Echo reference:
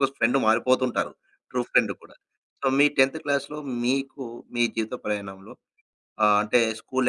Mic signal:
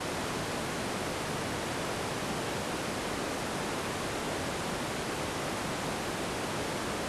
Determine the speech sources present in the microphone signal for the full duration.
neither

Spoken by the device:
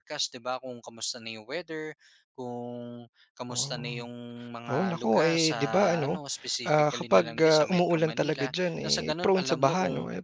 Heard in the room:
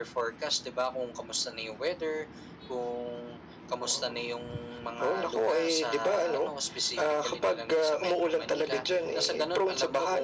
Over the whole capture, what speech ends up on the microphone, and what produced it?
echo only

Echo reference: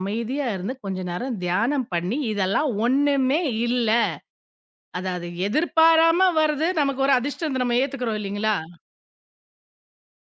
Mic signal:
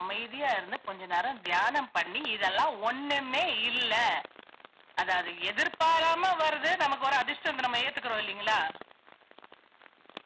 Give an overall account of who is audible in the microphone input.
echo only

